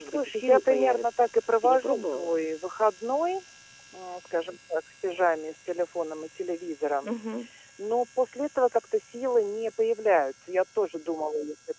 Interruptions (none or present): present